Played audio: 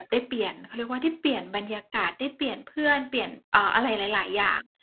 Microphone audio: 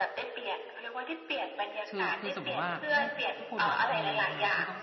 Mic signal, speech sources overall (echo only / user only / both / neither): both